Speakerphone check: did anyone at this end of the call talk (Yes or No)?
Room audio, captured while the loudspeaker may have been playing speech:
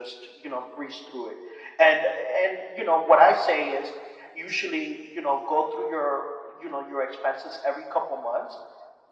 No